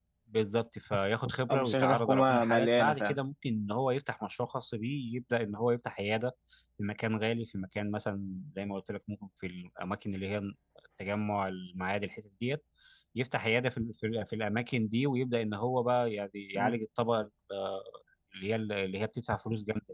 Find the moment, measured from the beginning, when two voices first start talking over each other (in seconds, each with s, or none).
1.5 s